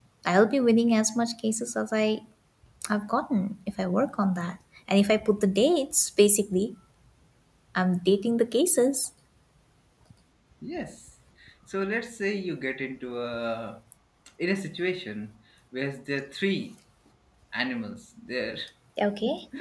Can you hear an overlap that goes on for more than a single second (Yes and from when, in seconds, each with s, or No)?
No